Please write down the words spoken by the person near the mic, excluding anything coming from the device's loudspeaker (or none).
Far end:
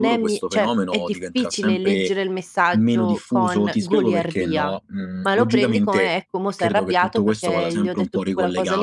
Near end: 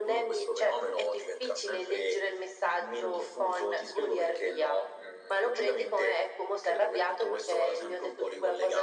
none